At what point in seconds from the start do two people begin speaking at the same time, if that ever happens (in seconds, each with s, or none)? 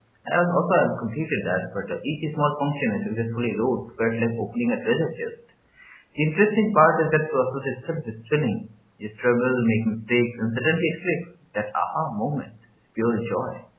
none